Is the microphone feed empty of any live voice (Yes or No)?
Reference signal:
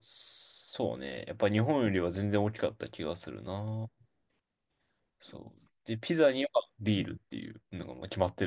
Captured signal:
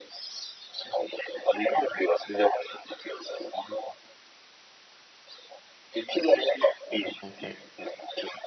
No